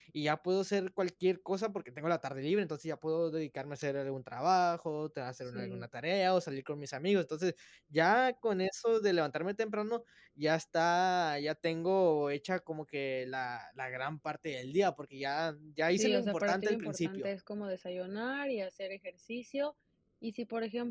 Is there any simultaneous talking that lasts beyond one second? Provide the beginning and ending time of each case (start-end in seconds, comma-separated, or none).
15.9-17.3